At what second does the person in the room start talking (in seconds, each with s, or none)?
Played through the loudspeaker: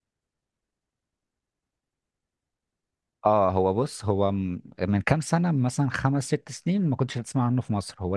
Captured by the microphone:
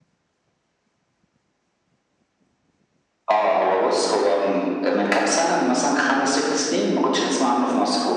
none